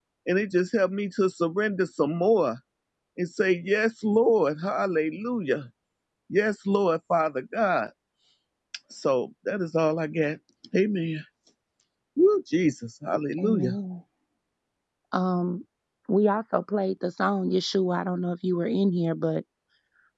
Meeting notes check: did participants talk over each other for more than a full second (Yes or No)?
No